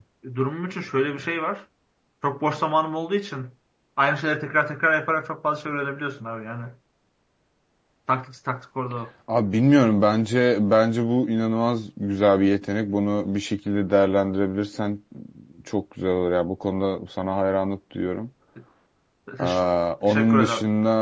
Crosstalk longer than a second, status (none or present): none